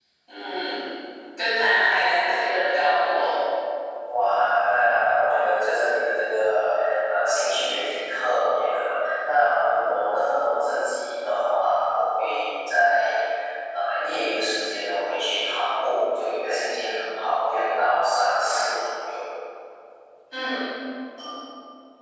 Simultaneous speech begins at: none

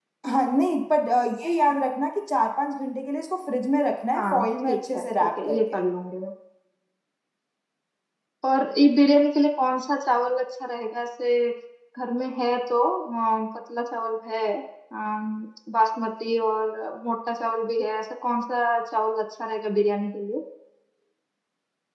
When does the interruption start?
4.1 s

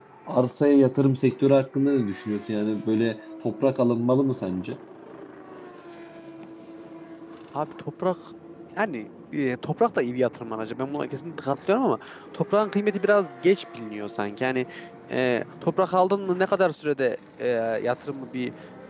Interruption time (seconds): none

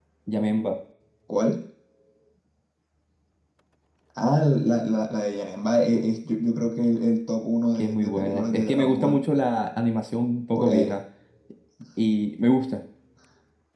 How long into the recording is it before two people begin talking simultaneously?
7.7 s

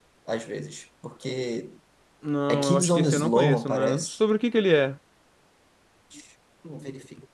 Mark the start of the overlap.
2.5 s

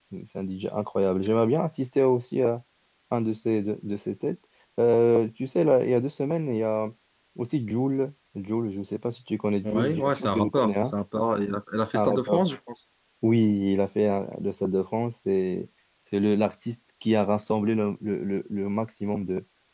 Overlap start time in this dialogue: 9.6 s

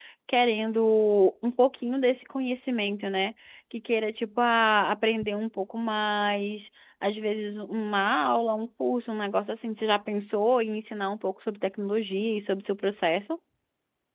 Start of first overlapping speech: none

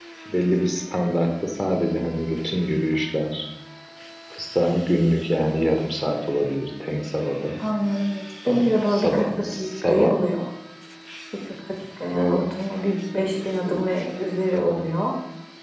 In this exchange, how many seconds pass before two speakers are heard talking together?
8.5 s

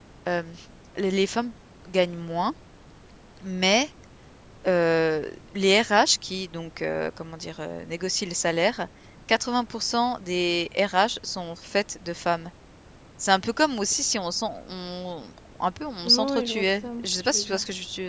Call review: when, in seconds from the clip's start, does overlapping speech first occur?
16.0 s

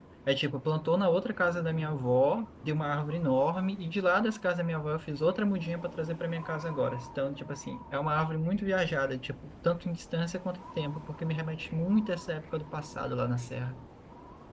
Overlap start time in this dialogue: none

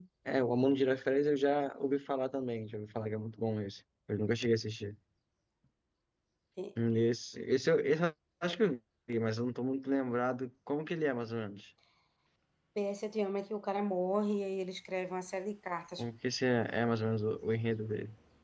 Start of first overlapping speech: none

